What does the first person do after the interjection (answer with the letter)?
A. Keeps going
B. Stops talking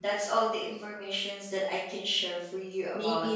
B